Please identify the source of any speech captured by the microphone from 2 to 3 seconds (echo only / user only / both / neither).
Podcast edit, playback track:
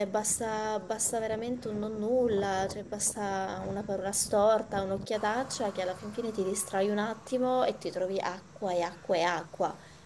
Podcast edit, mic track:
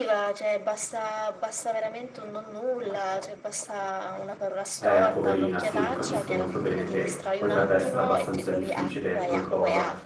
echo only